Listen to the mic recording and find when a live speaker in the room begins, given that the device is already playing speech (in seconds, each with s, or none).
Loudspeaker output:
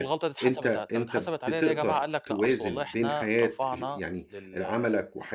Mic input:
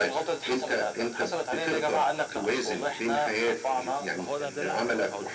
4.2 s